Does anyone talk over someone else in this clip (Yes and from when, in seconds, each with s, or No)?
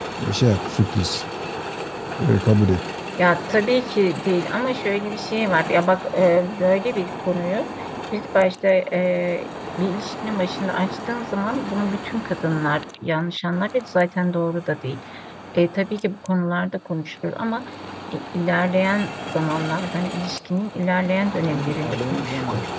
Yes, from 21.4 s